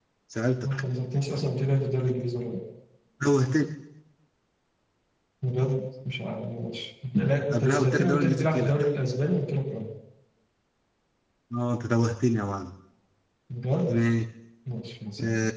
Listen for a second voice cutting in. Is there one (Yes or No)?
Yes